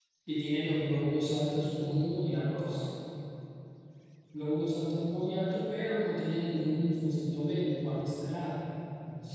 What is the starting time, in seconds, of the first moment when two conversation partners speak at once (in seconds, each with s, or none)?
1.5 s